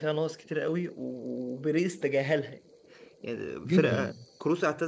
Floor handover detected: No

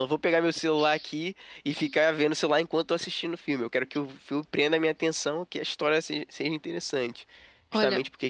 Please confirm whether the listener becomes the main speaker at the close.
No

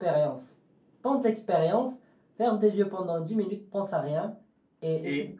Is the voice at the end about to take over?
No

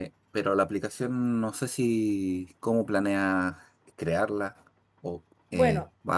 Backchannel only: No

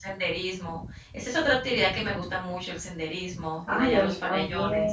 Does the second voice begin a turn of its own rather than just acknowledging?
Yes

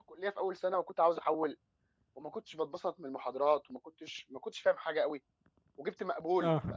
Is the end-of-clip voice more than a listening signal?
No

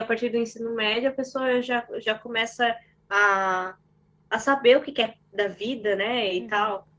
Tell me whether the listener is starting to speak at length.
Yes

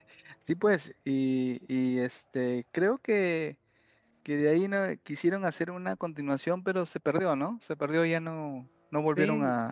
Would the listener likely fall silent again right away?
No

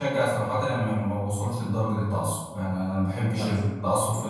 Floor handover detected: No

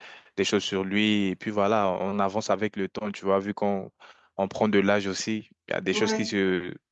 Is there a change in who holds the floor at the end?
No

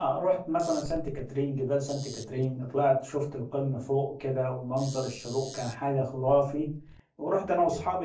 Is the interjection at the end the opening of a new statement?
No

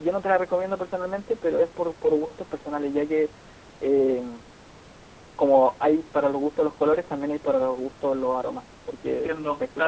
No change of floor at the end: No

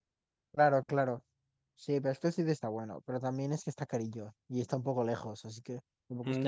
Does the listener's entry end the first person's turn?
Yes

